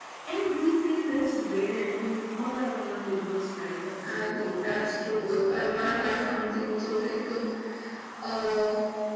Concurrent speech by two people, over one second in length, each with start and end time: 4.0-6.0

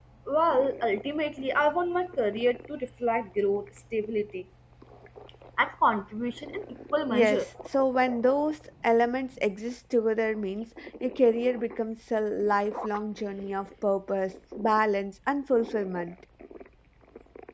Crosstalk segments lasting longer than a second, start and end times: none

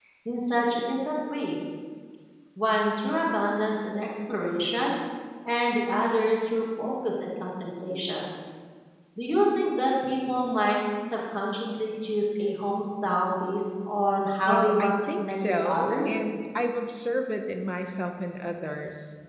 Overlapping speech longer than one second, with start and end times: 14.5-16.2

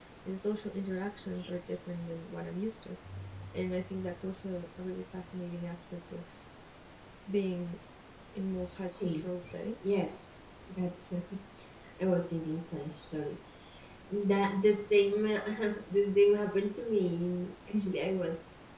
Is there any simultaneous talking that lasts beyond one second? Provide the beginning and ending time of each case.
8.6-9.9

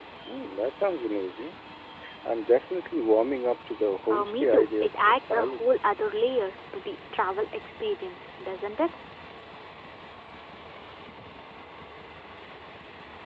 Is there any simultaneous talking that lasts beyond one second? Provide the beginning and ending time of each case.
4.1-5.7

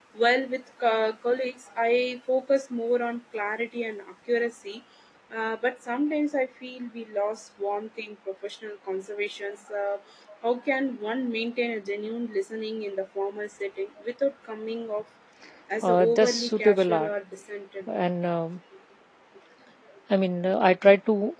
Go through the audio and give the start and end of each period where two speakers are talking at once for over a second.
15.8-17.1

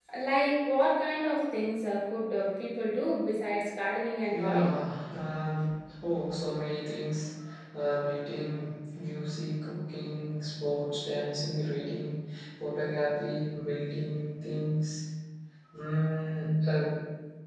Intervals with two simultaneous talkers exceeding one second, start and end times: none

